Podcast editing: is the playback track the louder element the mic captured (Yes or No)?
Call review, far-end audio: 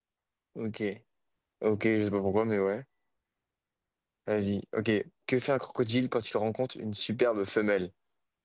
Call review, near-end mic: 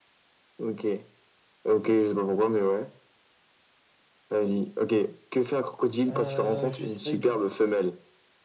Yes